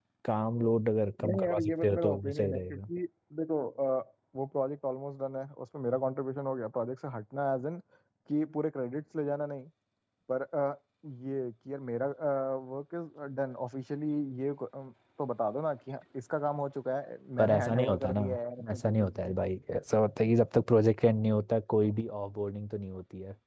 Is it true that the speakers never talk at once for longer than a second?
No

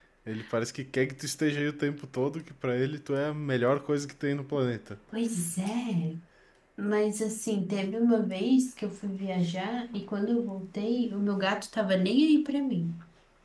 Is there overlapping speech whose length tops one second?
No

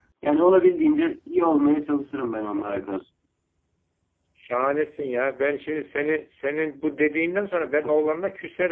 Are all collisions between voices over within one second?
Yes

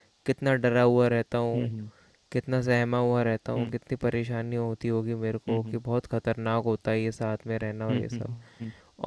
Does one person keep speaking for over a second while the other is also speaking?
No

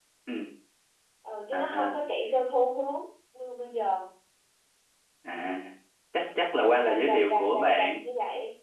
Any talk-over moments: Yes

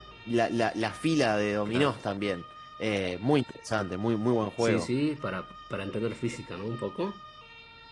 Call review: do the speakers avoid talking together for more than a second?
Yes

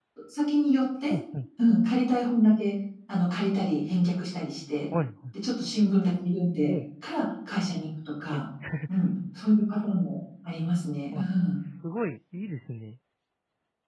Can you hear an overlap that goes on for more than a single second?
No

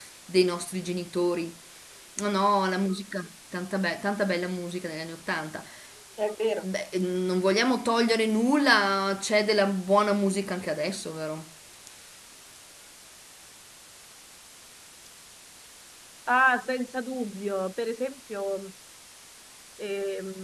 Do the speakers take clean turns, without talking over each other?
Yes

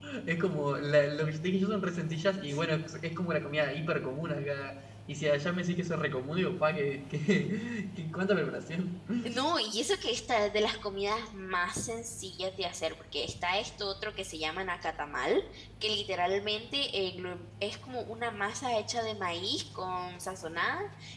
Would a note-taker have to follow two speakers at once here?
No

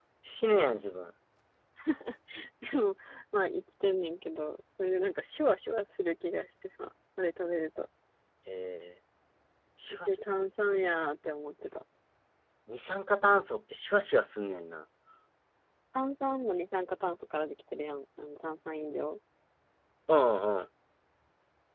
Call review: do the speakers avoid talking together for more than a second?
Yes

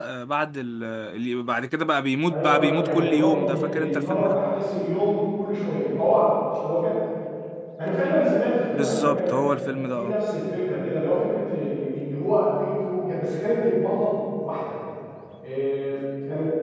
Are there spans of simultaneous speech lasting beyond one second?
Yes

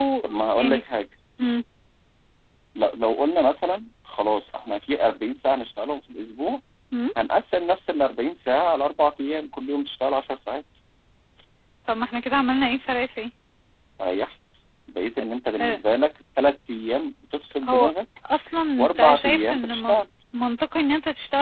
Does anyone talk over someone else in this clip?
Yes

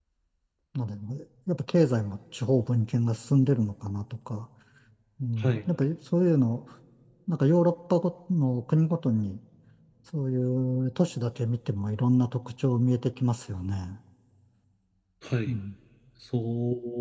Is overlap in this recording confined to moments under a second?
Yes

